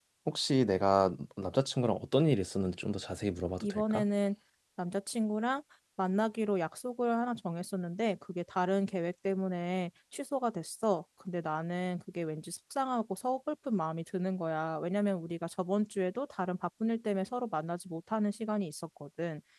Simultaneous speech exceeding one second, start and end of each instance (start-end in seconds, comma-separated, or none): none